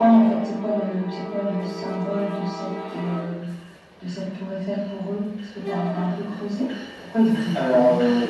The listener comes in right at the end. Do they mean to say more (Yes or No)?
Yes